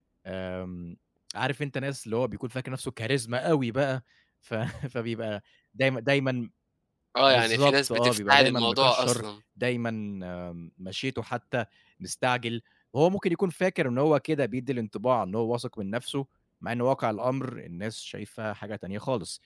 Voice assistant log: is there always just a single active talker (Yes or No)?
No